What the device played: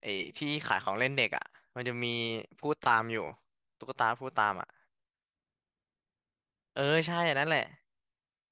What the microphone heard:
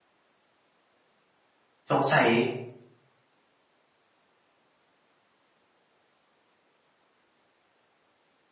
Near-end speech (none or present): present